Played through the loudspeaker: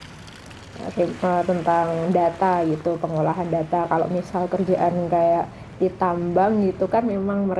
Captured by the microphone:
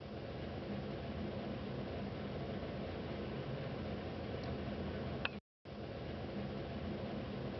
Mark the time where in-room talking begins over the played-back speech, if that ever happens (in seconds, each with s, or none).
none